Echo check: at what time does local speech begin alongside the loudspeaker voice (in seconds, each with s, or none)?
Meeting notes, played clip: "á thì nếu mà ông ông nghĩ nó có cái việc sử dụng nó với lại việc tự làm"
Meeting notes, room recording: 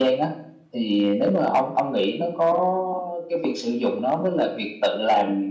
none